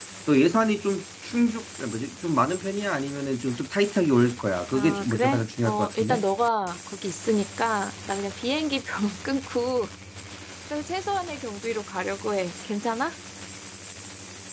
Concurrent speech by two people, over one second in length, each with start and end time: 4.7-6.2

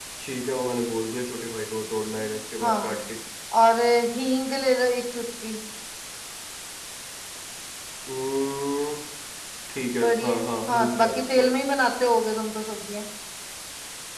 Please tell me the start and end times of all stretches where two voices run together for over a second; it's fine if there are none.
10.0-11.5

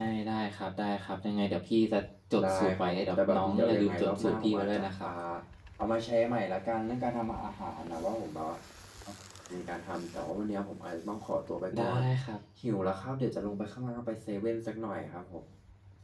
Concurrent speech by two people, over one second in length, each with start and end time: 2.4-5.1

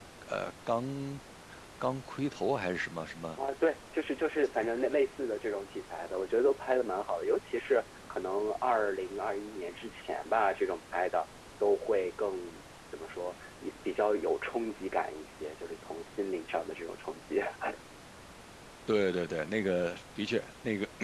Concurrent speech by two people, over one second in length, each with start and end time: none

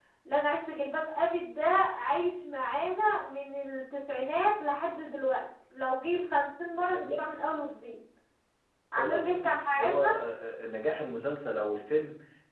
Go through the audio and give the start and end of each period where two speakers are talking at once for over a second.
9.0-10.2

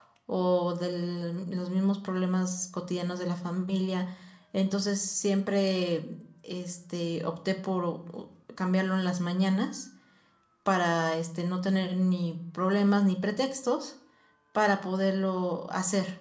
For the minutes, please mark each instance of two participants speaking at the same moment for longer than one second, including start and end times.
none

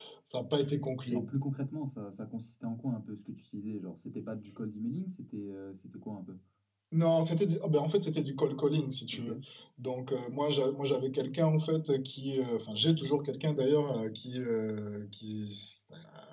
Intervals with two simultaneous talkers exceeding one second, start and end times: none

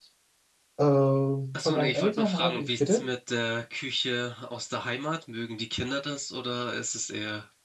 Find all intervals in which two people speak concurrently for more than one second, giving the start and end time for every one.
1.5-3.1

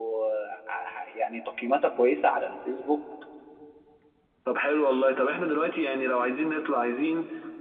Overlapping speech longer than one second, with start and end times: none

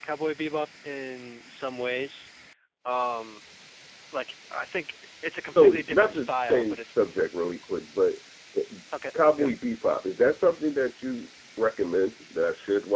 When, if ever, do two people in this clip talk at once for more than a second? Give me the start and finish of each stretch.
5.5-6.8

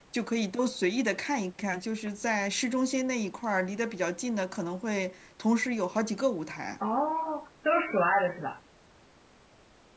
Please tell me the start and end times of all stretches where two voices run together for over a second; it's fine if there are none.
none

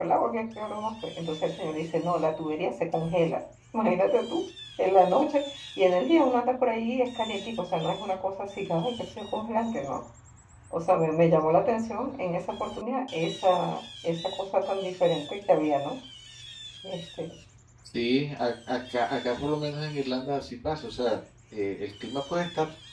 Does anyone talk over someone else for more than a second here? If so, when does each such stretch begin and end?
none

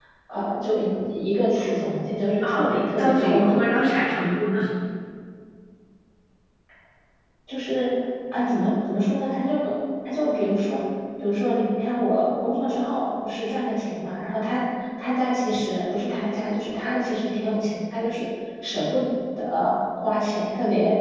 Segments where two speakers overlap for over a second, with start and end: 2.4-3.6

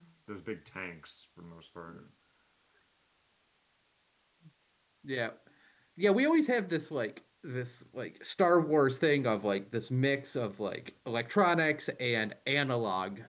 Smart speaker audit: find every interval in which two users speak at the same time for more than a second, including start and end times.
none

